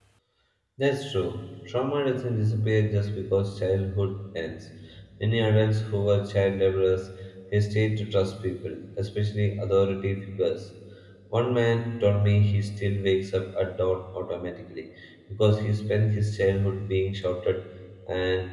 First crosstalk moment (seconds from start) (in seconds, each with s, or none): none